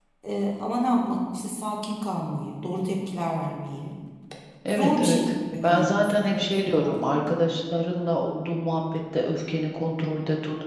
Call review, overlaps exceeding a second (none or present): present